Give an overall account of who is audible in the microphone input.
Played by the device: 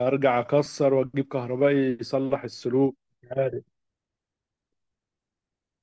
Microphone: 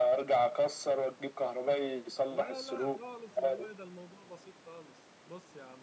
both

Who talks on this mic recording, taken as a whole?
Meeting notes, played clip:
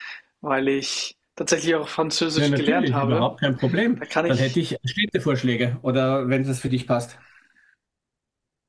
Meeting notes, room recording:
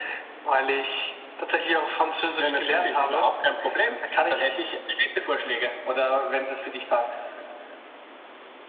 echo only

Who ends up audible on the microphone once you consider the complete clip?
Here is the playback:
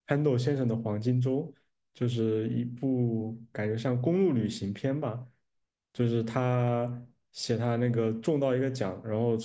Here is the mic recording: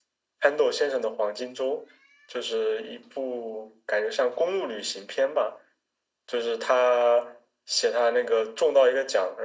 echo only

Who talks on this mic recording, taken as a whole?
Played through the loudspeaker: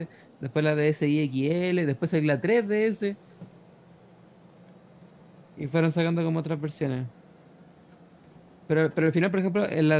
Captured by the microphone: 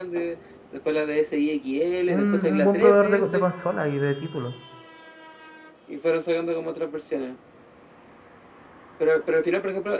both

